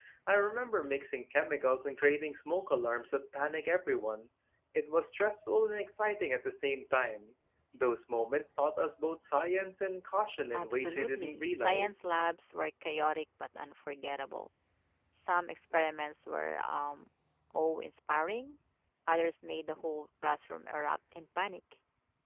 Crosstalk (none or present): present